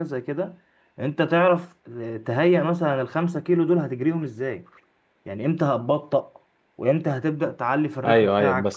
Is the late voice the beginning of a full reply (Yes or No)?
Yes